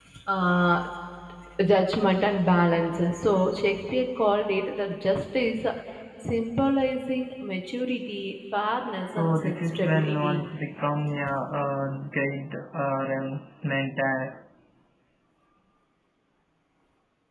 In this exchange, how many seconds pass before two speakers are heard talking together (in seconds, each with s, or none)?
8.9 s